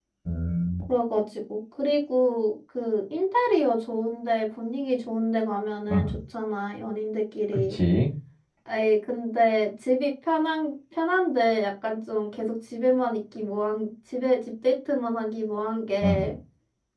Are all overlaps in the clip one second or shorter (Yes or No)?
Yes